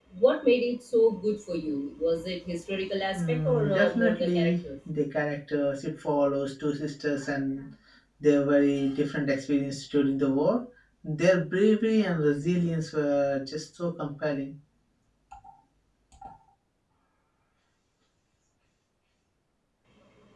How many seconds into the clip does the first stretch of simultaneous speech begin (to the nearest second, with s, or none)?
3 s